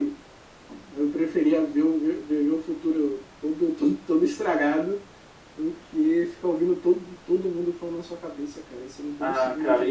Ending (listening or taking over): taking over